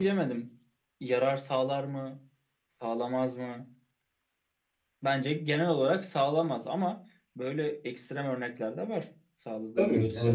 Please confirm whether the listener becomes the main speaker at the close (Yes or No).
Yes